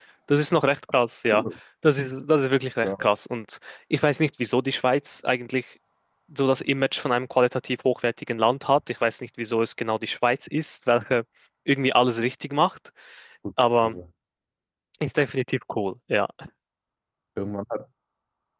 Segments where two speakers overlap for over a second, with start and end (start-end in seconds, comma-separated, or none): none